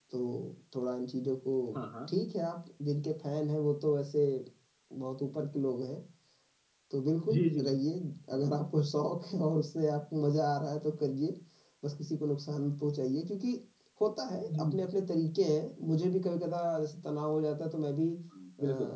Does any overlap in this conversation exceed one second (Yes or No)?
No